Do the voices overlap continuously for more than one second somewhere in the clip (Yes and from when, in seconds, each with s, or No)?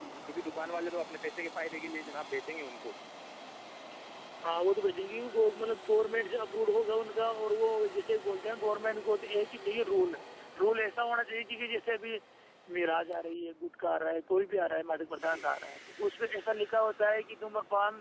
No